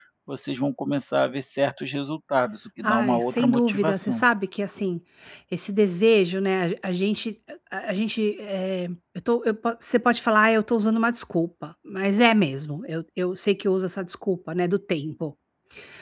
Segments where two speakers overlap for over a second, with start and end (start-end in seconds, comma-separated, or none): 2.8-4.2